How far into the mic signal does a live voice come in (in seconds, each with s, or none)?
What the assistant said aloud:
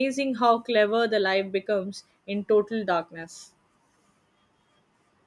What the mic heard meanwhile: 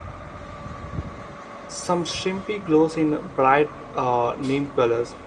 1.7 s